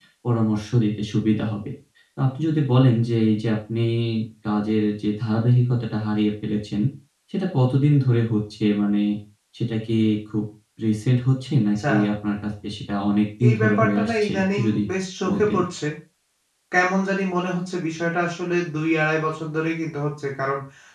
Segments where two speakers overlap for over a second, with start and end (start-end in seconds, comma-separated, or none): 13.5-14.8